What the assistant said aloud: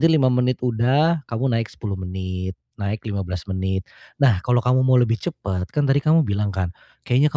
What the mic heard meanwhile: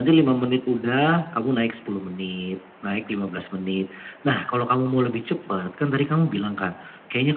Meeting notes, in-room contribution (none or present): none